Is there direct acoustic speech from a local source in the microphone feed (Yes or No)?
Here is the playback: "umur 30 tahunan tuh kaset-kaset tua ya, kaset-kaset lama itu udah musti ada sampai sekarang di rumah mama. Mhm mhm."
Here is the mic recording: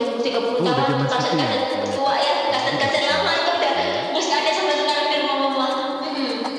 Yes